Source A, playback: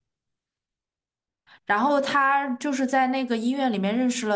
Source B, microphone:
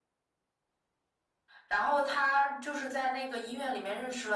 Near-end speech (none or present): none